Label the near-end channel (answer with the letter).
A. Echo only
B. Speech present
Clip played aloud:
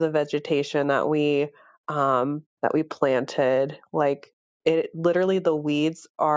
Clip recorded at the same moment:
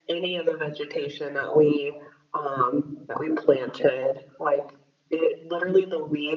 A